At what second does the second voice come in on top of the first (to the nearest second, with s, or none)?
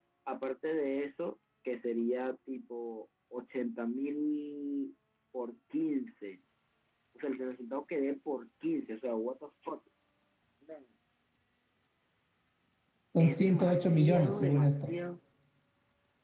13 s